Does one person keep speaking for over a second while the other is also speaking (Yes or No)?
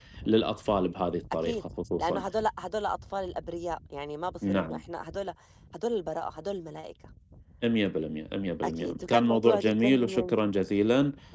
Yes